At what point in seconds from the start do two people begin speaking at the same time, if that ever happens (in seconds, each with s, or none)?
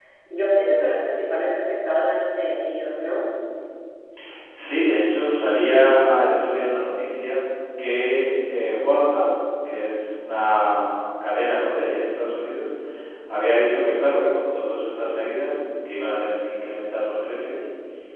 none